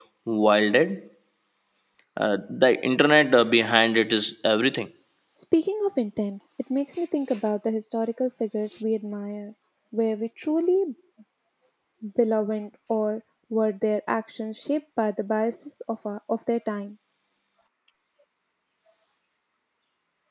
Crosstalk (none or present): none